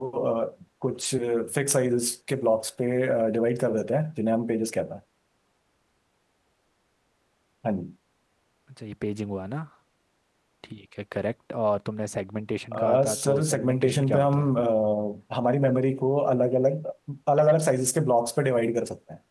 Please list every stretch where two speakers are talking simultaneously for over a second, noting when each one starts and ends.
12.8-14.5

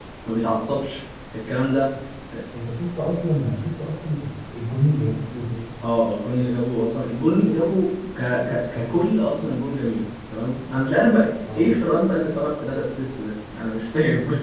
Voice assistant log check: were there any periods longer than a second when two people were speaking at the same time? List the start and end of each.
none

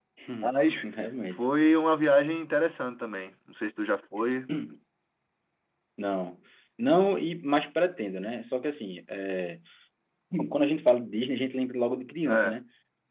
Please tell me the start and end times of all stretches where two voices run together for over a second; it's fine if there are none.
none

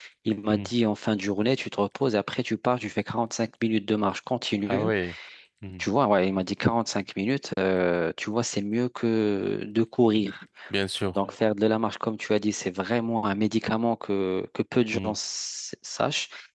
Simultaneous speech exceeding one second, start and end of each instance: none

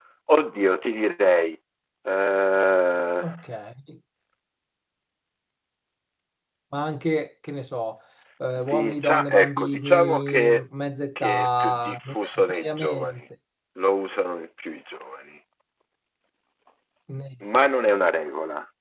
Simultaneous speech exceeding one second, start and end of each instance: 8.7-10.6, 11.2-13.2

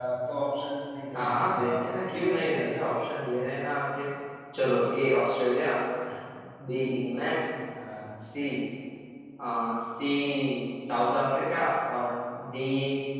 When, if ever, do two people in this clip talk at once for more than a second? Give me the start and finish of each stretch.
1.1-2.8

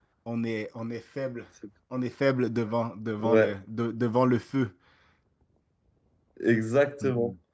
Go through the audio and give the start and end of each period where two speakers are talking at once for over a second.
none

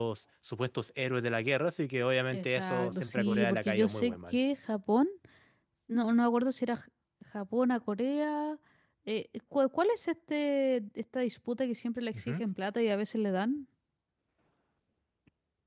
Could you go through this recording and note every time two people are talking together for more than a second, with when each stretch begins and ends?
2.3-4.4

